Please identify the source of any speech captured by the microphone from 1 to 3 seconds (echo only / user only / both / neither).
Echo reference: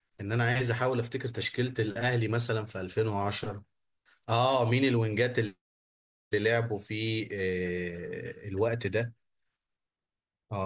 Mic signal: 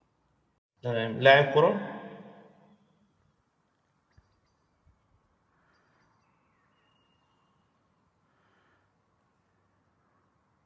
user only